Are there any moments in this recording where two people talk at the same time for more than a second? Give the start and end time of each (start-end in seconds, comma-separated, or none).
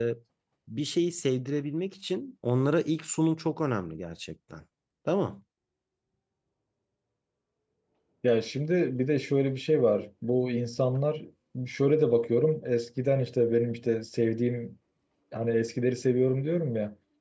none